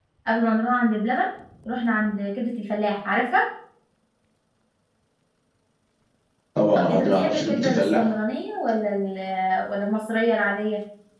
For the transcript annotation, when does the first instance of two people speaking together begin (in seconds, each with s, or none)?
6.8 s